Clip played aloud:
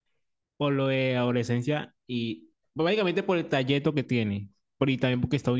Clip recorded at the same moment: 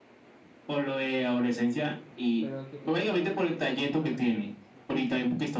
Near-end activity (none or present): present